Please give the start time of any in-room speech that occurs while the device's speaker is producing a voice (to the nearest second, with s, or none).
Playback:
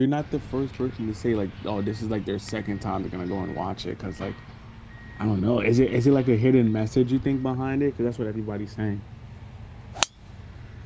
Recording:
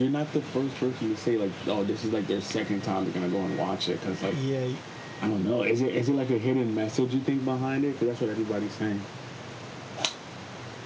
4 s